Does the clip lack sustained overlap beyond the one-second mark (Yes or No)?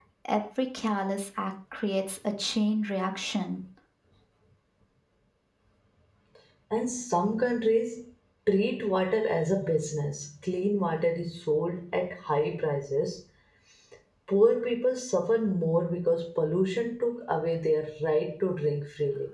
Yes